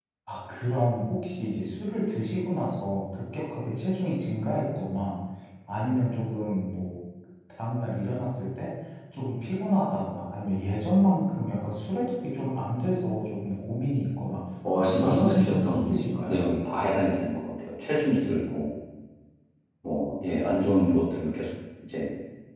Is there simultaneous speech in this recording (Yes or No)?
Yes